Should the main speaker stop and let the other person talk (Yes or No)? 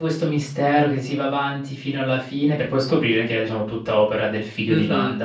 Yes